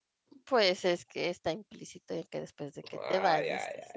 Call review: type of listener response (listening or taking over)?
taking over